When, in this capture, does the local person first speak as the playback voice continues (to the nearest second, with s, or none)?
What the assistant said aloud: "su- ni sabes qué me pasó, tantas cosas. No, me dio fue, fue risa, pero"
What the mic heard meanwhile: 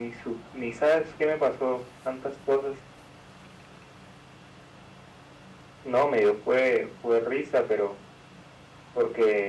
none